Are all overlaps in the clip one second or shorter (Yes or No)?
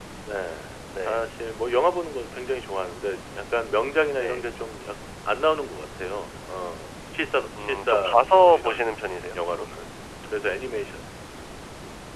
No